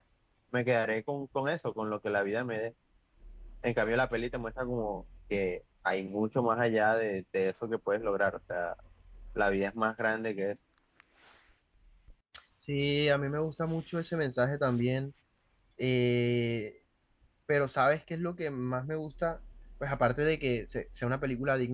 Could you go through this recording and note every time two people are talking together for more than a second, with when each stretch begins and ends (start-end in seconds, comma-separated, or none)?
none